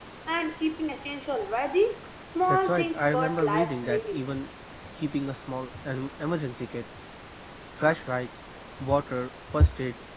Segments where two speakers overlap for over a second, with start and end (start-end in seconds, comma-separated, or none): 2.5-4.3